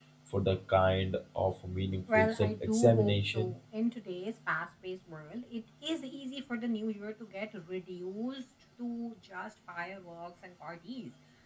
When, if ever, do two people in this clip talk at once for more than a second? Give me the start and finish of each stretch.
2.1-3.5

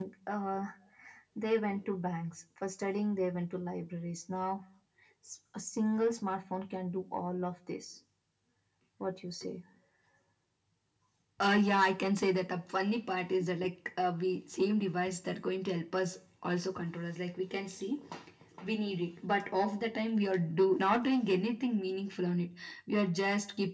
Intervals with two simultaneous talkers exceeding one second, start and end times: none

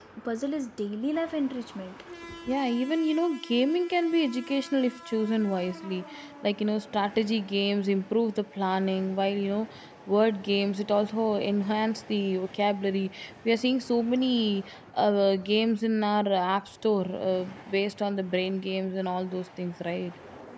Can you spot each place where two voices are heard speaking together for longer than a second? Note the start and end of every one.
none

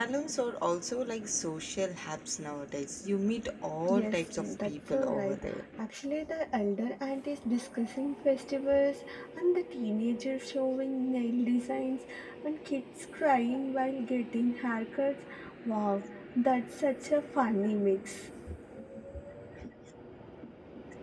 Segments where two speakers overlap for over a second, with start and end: 3.9-5.4

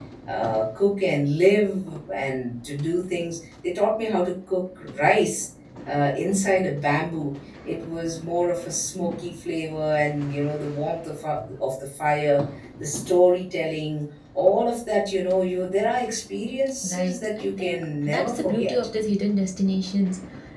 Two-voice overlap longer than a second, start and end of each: 16.8-18.8

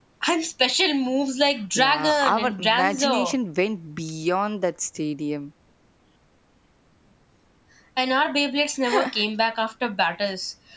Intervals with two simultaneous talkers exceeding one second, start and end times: 1.8-3.4

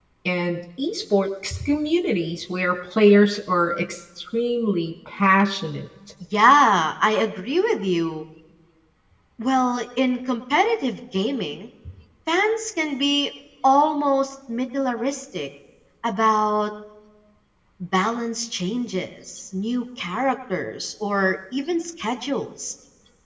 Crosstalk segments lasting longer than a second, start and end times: none

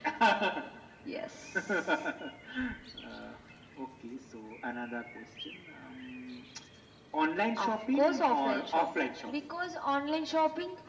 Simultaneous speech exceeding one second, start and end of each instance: 7.6-9.3

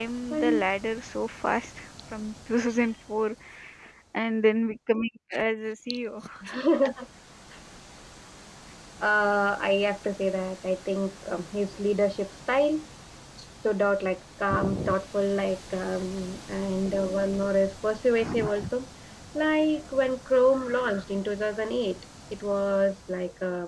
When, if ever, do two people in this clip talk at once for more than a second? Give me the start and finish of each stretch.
none

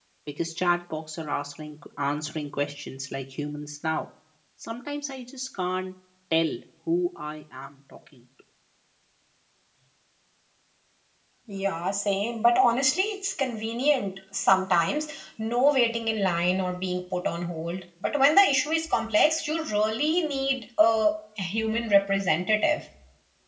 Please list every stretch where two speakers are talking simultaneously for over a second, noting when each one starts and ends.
none

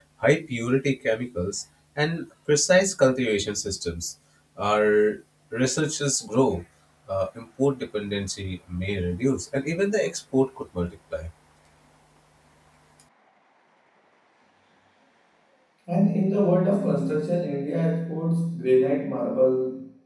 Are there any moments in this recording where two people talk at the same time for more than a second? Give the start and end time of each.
none

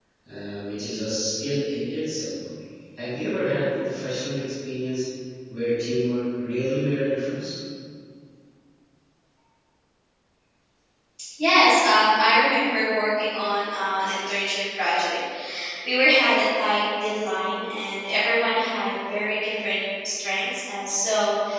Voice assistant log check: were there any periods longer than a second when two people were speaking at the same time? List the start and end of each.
none

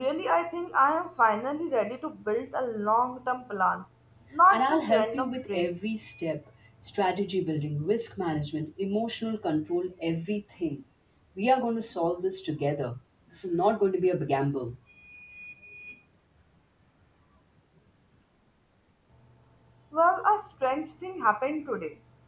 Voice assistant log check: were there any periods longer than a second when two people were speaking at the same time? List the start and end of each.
4.5-5.7

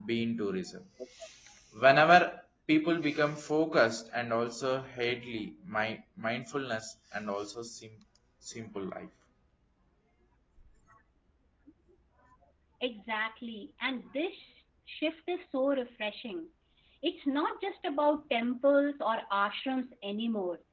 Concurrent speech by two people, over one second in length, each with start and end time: none

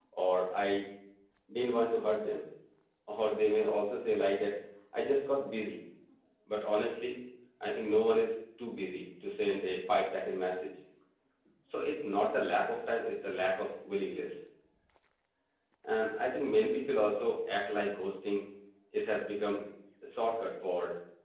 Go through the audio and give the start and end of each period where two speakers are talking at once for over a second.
none

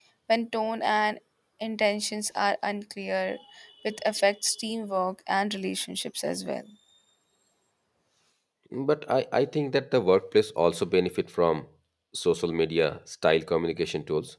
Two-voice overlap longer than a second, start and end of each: none

